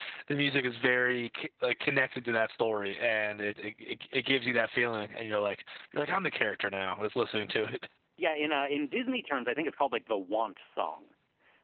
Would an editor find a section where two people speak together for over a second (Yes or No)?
No